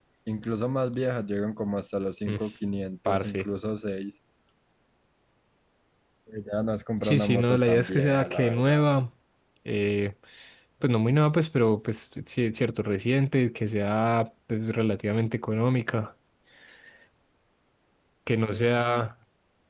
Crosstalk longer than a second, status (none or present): present